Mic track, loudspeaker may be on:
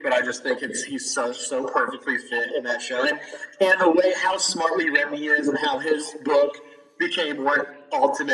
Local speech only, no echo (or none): none